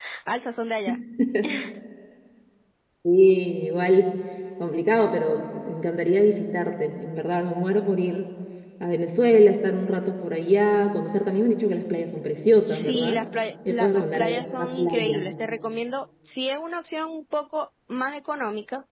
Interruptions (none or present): present